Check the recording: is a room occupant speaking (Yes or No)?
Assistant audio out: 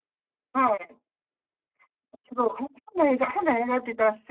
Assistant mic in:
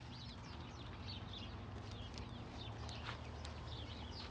No